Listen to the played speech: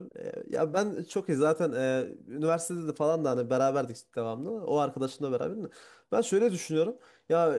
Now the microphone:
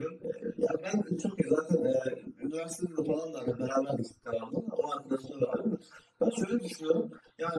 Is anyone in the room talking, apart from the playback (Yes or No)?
No